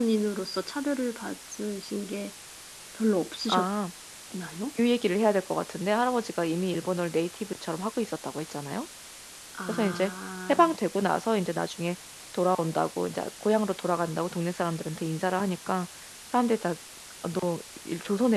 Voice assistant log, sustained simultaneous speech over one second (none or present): none